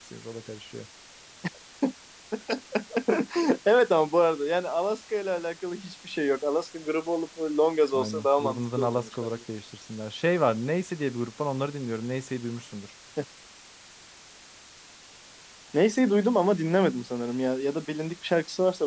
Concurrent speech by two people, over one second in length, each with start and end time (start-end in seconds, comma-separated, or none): 7.9-9.4